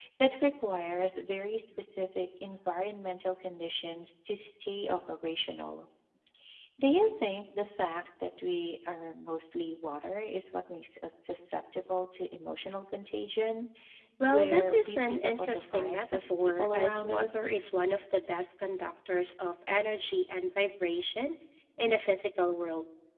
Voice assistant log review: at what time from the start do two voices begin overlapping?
14 s

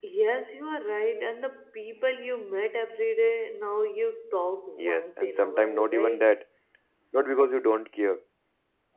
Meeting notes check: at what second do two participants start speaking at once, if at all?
5 s

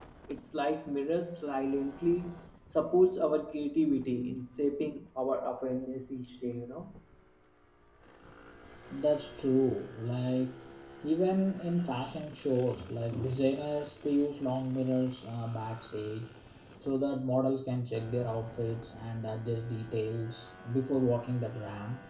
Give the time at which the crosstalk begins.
none

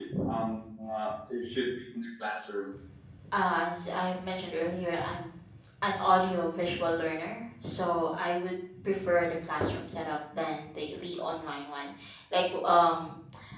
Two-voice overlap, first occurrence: none

